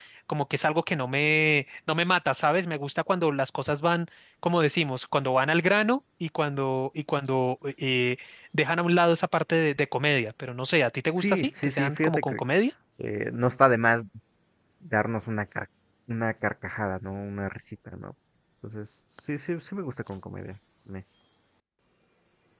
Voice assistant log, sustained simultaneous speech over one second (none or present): present